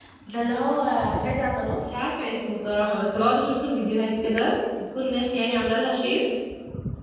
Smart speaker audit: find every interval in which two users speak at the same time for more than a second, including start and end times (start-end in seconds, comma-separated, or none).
none